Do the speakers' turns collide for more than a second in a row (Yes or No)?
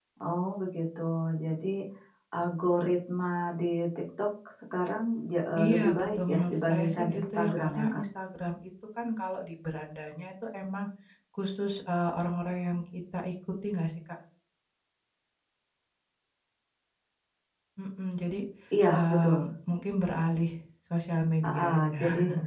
Yes